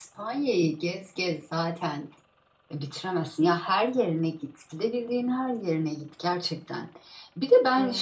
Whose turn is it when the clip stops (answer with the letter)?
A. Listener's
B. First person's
B